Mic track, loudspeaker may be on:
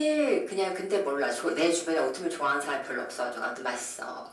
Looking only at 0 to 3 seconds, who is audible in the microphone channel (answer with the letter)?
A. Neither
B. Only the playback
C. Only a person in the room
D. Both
B